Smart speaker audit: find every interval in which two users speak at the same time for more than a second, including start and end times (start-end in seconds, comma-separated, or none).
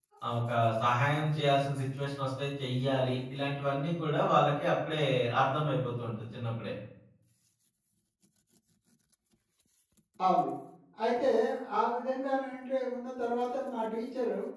none